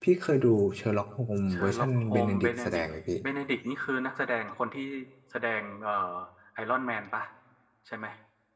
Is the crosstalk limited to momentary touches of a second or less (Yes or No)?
No